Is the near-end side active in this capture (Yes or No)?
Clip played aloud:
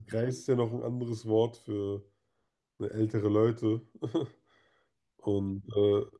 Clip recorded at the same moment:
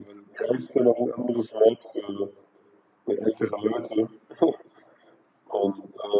No